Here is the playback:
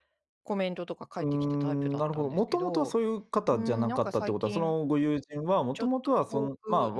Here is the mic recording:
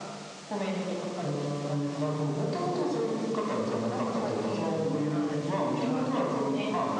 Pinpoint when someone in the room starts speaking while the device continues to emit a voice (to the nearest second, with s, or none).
5 s